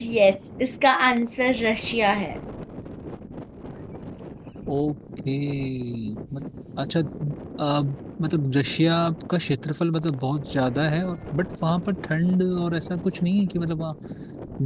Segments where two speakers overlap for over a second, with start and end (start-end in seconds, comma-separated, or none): none